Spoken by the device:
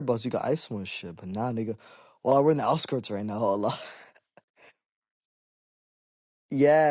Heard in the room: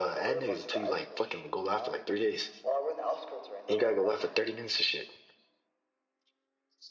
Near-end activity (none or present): present